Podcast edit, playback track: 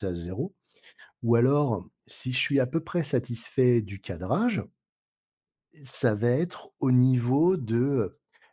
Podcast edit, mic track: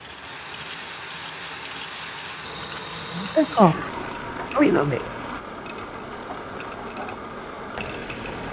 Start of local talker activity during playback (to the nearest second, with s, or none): 3 s